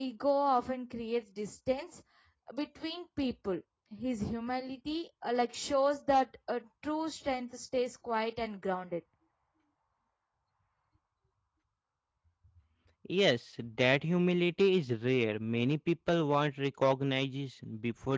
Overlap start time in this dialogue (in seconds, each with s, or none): none